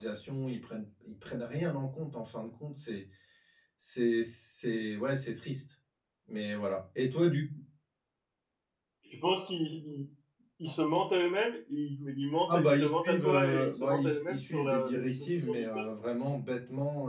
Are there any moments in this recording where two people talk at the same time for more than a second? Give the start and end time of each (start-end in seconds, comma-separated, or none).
12.5-15.9